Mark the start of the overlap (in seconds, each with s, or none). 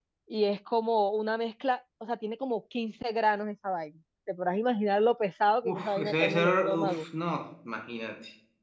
5.7 s